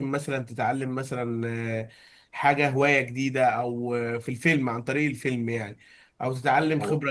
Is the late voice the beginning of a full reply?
No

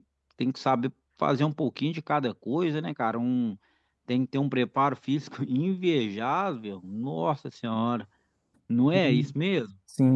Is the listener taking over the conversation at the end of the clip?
Yes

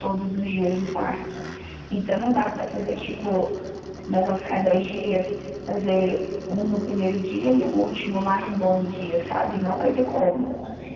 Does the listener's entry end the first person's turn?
Yes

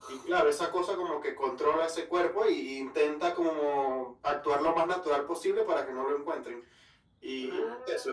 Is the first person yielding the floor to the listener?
No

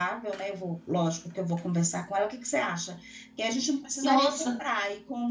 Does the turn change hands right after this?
No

